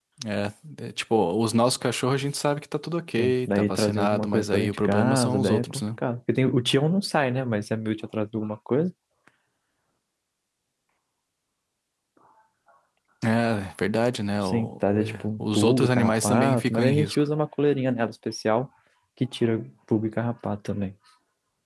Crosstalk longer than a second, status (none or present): present